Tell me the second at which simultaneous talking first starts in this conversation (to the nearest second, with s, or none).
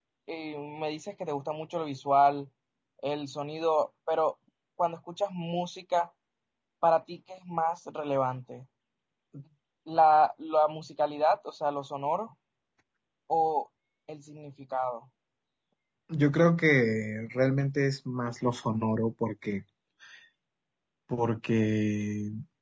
none